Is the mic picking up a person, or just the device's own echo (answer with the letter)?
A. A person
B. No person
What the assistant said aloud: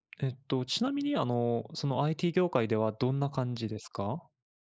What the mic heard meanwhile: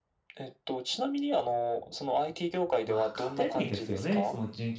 A